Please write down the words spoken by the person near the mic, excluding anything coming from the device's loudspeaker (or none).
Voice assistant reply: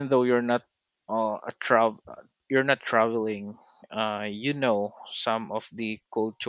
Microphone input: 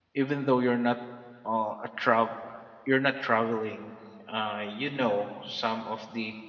none